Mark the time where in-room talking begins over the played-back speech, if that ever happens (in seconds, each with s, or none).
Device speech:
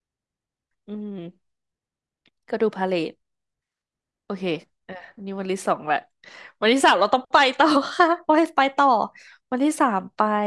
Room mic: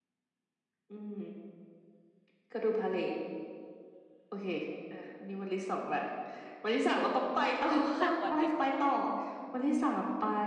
7.6 s